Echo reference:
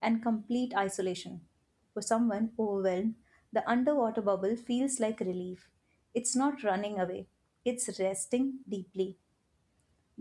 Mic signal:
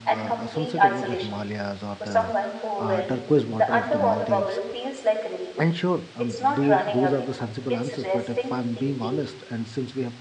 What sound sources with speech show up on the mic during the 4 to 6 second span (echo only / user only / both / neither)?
both